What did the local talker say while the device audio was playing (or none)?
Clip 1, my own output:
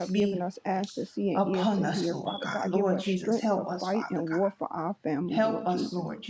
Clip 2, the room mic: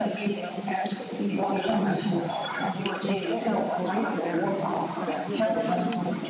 over each other, over our family, Father God. Give us strength,